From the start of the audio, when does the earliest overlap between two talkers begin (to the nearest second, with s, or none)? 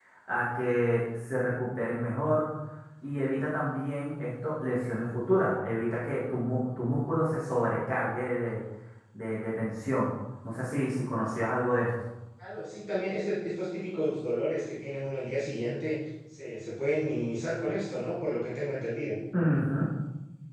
none